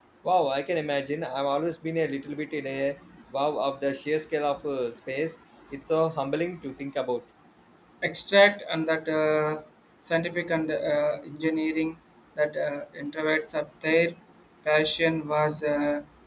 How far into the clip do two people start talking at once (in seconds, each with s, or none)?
none